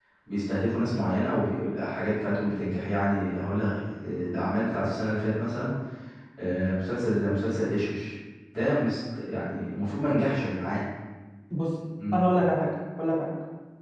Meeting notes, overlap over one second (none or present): none